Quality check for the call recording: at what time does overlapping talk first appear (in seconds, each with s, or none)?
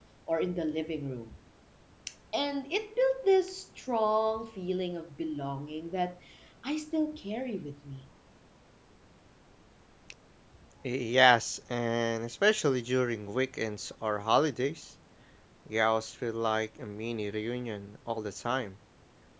none